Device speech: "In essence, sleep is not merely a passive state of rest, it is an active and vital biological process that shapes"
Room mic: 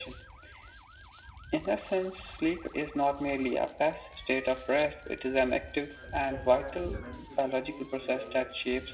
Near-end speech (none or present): present